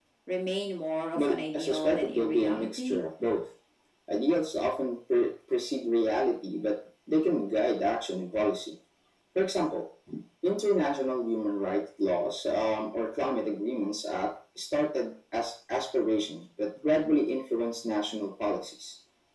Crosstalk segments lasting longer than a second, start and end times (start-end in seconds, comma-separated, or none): 1.2-3.0